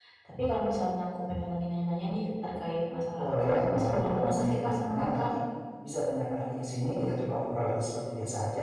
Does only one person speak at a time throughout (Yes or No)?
No